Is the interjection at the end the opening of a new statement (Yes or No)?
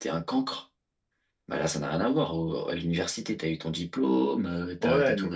Yes